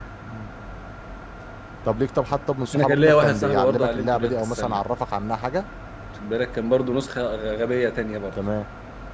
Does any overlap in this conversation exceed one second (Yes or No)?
Yes